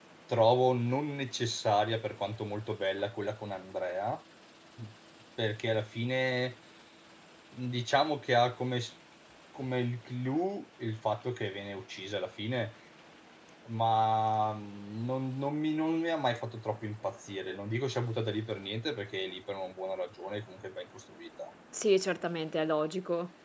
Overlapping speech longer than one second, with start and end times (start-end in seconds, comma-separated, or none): none